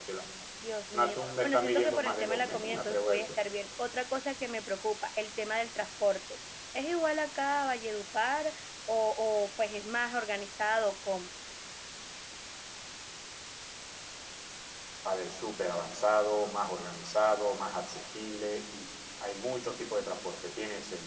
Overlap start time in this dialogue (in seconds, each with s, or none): 0.9 s